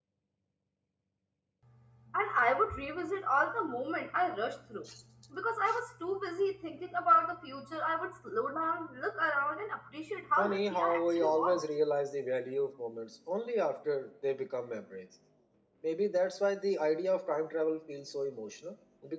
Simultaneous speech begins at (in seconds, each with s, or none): 10.4 s